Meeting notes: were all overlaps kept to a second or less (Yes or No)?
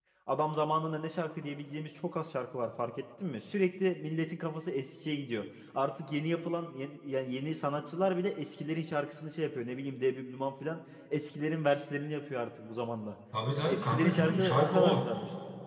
No